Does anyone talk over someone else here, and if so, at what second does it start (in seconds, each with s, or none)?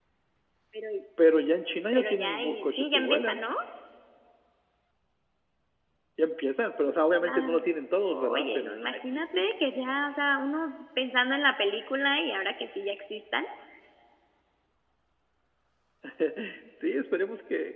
1.9 s